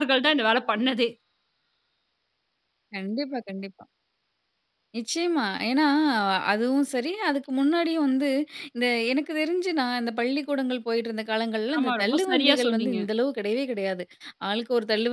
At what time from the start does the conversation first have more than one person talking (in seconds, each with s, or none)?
11.7 s